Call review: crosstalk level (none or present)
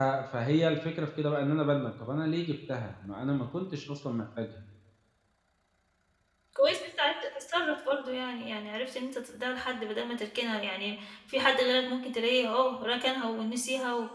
none